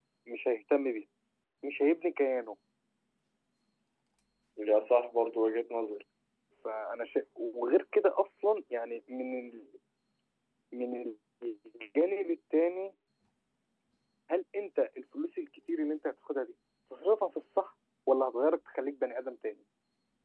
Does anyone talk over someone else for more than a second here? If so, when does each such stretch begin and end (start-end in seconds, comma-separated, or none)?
none